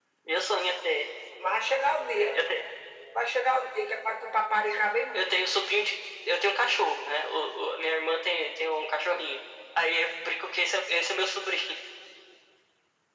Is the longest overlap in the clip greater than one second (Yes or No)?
No